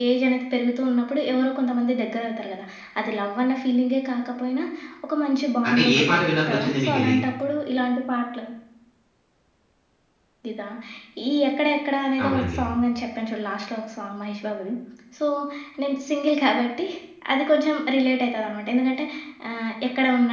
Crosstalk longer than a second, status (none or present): present